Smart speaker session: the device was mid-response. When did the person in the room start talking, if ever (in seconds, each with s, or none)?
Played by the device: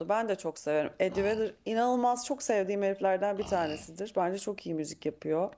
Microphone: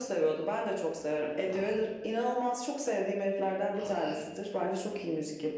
none